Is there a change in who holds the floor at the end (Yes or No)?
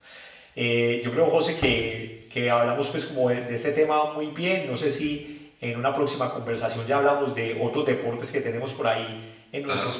No